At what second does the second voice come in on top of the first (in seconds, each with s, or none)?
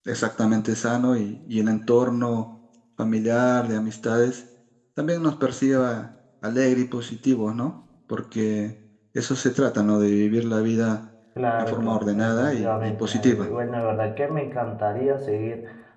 11.6 s